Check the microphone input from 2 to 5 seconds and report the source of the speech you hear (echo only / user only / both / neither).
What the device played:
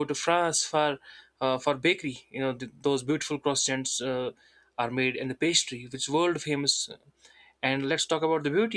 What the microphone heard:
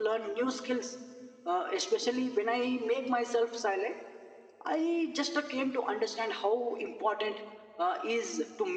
user only